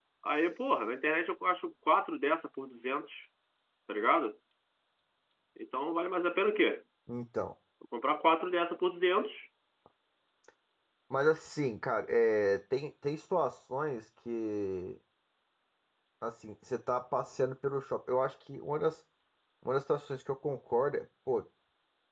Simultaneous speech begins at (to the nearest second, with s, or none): none